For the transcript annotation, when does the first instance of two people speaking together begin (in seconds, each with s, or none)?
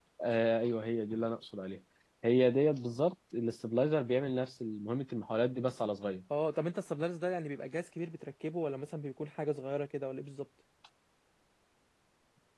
none